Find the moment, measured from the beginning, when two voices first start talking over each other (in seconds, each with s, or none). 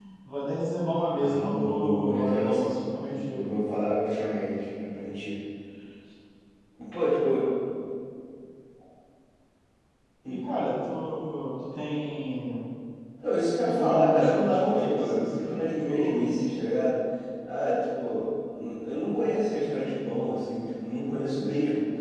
1.2 s